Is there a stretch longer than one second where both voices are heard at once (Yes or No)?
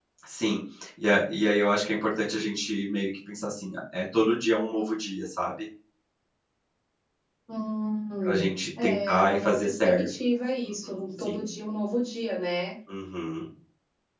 Yes